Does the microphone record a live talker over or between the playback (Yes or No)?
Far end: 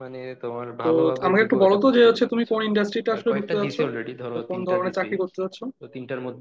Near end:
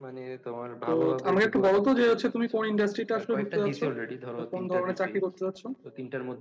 No